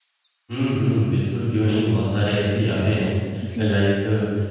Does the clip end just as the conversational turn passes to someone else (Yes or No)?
No